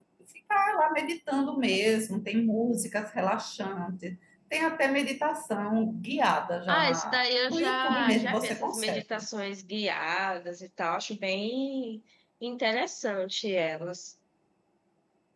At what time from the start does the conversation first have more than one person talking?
6.7 s

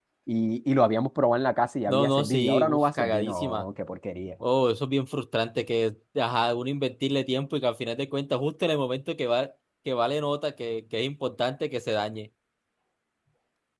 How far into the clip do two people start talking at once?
1.9 s

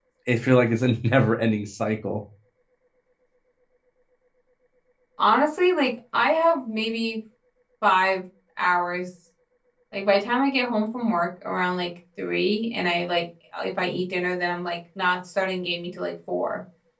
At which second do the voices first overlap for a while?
none

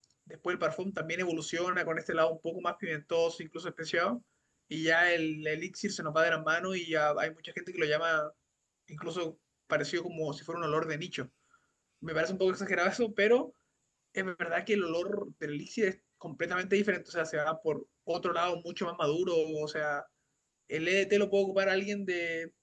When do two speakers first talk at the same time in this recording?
none

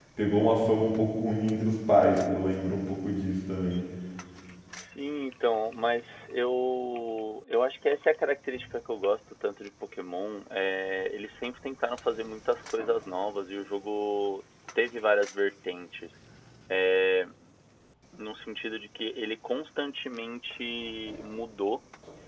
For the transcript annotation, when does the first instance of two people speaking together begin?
none

